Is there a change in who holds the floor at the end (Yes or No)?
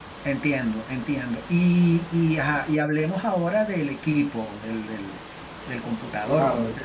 Yes